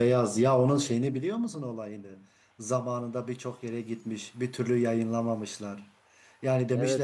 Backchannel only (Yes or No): Yes